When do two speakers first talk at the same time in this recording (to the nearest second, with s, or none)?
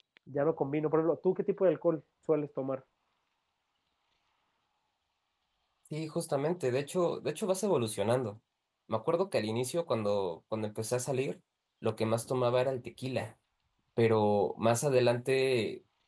none